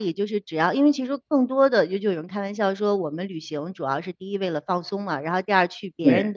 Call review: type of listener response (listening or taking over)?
listening